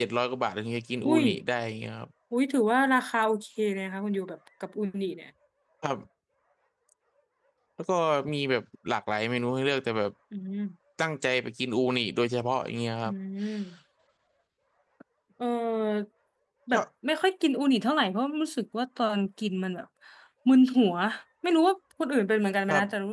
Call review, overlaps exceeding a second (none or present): none